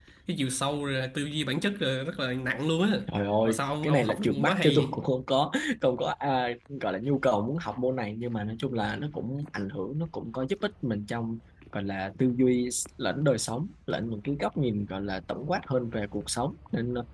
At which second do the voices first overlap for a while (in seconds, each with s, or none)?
3.4 s